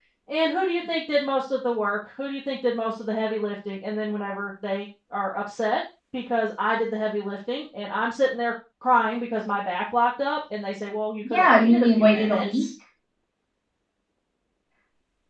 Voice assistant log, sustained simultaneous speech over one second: present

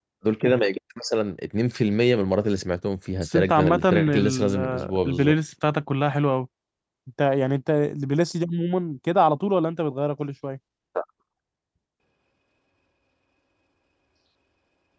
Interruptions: present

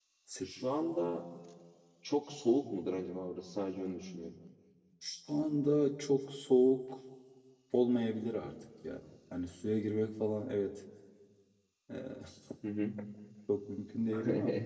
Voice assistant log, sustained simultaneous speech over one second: none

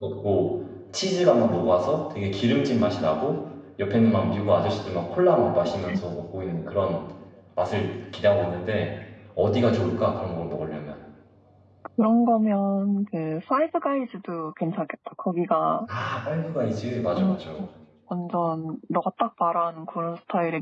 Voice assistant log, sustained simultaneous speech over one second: none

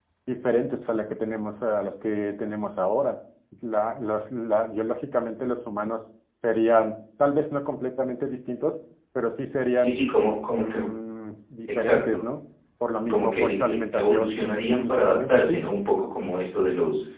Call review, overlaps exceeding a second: present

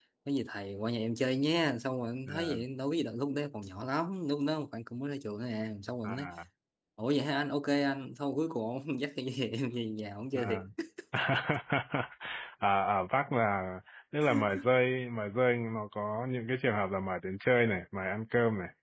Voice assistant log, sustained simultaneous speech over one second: none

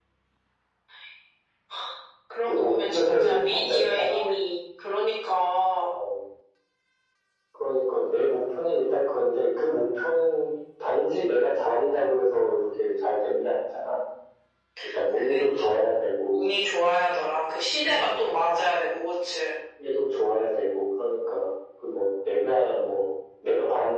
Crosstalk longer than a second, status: present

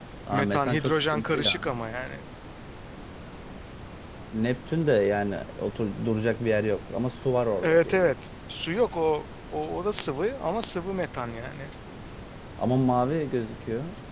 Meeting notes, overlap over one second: present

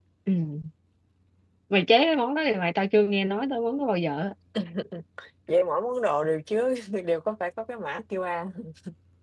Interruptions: none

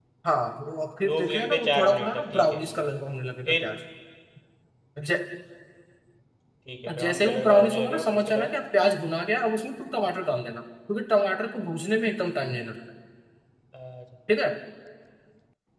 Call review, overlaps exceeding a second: present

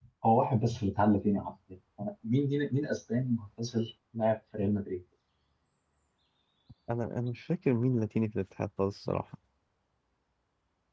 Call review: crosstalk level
none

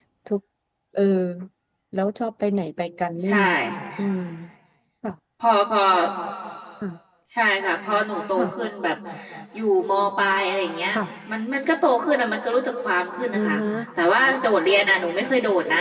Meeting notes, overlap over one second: none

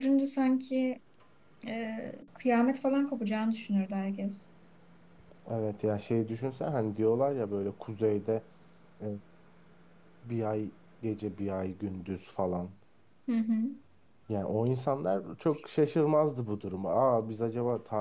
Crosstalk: none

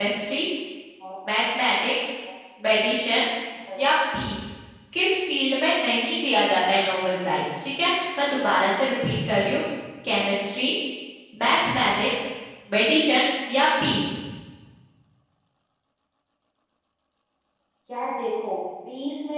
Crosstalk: none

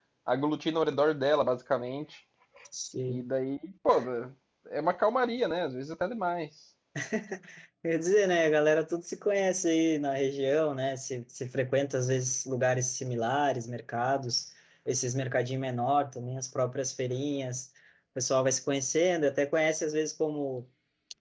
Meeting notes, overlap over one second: none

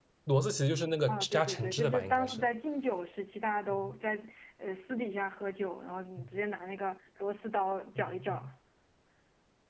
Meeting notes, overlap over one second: present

